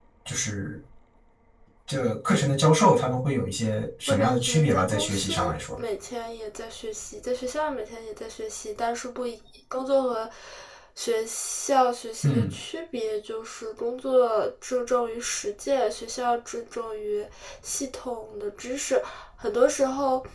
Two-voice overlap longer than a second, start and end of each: 4.1-5.8

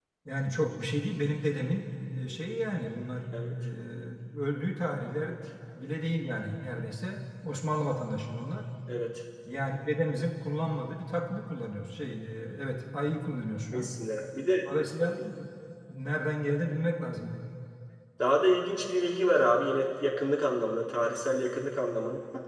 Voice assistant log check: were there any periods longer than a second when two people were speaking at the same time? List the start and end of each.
none

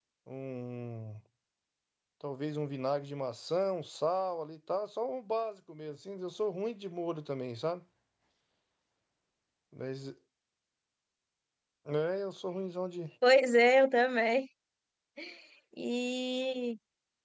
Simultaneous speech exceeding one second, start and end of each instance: none

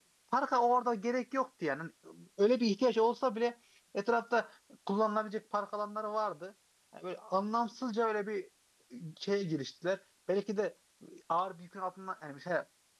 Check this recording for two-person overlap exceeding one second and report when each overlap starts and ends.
none

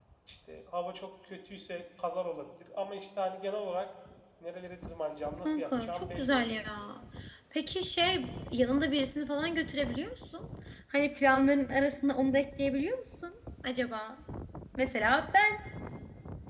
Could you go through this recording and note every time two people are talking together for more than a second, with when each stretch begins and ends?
5.5-6.9

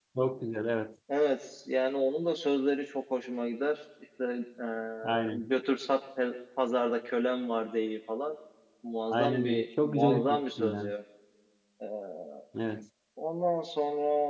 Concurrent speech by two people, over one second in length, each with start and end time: 9.1-10.9

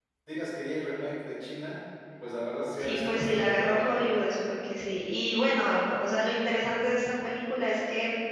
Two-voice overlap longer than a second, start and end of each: 2.8-4.0

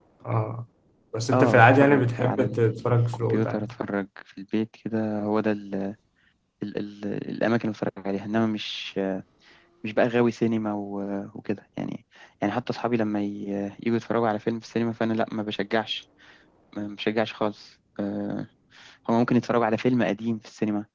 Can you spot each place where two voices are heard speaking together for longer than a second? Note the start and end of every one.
1.3-3.7

